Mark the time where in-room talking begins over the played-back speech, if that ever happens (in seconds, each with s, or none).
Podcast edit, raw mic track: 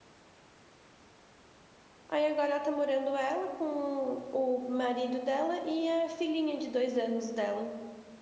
2.1 s